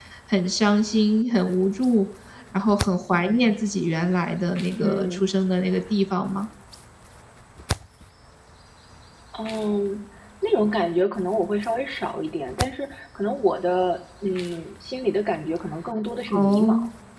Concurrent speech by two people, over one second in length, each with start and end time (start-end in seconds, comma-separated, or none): none